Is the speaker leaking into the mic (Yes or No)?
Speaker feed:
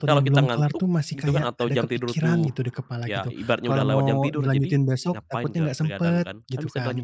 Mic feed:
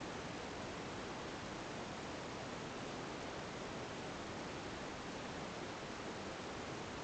No